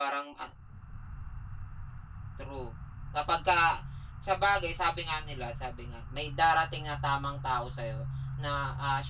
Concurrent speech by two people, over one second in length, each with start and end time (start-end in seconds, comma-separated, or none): none